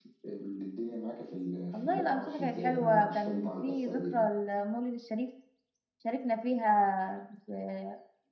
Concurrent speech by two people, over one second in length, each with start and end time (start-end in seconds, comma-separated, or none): 1.7-4.3